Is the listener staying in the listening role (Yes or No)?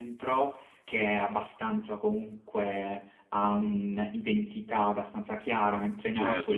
No